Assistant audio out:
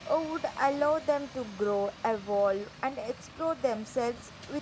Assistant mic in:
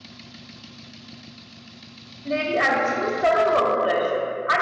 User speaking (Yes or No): Yes